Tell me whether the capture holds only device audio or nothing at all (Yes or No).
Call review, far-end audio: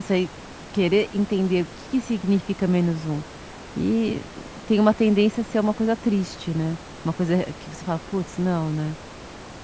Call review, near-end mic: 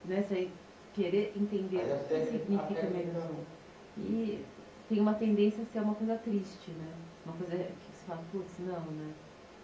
No